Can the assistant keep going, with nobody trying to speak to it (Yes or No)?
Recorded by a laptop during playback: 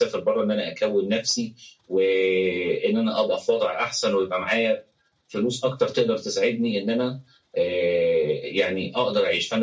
Yes